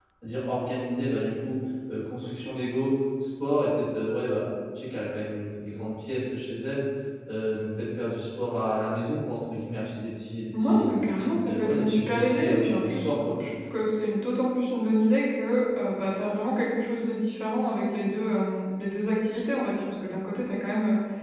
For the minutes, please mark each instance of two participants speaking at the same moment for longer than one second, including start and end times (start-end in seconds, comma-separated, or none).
10.6-13.4